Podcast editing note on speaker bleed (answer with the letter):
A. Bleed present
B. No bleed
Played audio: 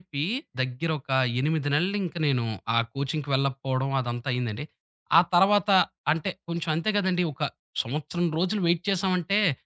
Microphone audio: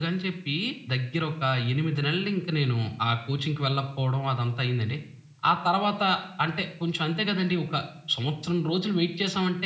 A